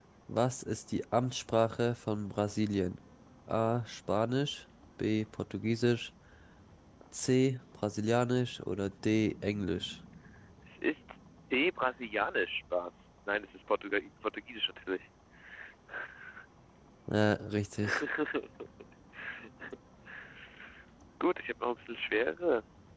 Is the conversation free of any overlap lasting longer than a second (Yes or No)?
Yes